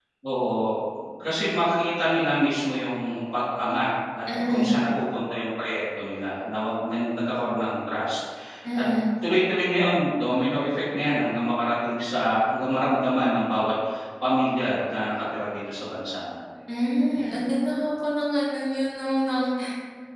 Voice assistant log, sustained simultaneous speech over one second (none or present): none